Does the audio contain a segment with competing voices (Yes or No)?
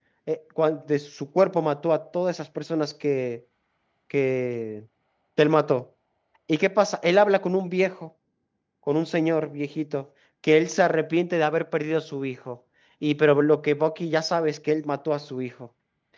No